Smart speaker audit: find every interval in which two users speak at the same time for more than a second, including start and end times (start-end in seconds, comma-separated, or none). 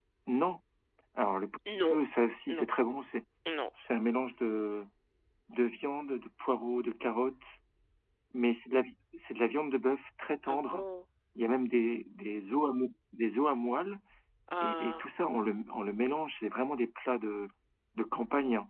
none